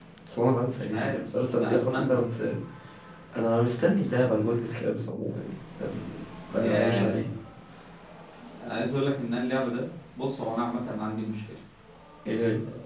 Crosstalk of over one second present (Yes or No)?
Yes